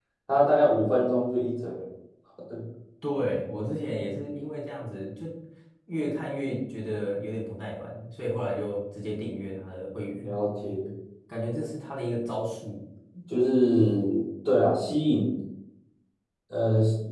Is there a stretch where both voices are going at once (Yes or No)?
No